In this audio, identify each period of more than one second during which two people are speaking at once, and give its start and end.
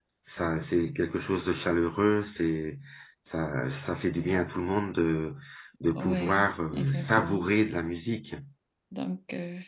6.0-7.4

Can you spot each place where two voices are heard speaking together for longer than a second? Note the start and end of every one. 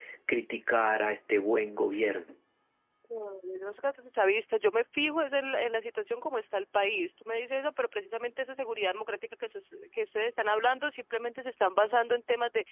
none

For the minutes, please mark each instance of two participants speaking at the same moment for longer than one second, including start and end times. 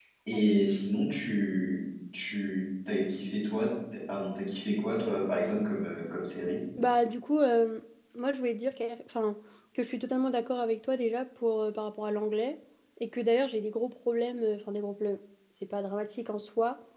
none

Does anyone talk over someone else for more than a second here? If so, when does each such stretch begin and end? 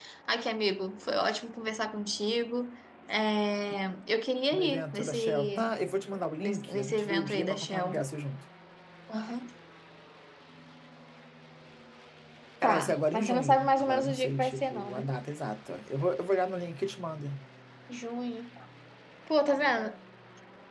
4.5-5.8, 6.4-8.0, 12.6-15.1

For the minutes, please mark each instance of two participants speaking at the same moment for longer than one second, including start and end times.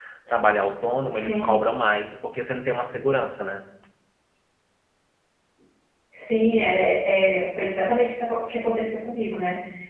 none

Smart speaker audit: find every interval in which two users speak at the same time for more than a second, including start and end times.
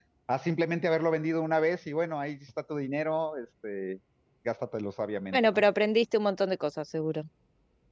none

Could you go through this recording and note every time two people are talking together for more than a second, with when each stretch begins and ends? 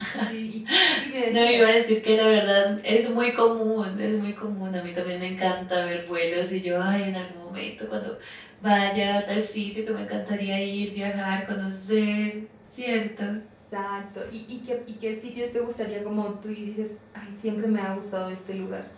none

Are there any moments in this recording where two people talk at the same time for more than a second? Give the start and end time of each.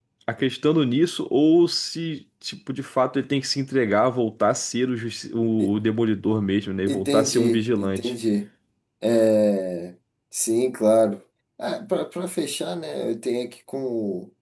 6.9-8.1

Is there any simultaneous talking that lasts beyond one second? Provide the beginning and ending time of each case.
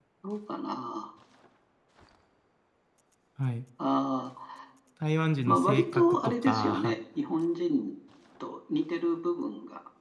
5.5-6.9

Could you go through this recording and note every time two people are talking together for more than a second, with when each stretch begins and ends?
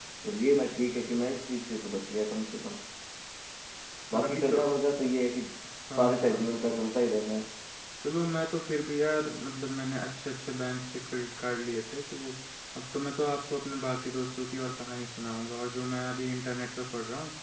none

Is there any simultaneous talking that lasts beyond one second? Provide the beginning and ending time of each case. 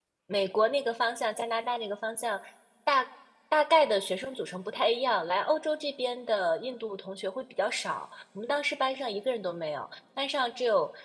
none

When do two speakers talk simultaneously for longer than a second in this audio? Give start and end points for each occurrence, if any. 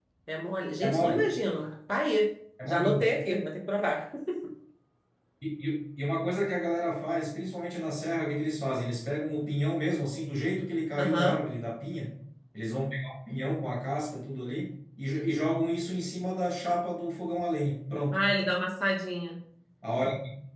none

